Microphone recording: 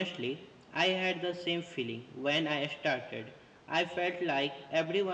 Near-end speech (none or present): none